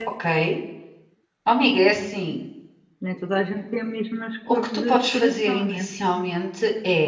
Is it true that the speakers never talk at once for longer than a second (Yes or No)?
No